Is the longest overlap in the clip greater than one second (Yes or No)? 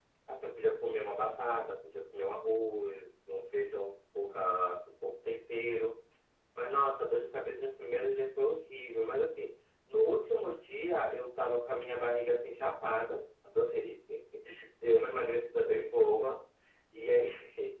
No